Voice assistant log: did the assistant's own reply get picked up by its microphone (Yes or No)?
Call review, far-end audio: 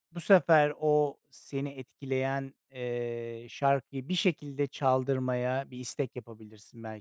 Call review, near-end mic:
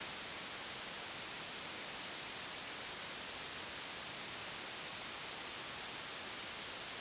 No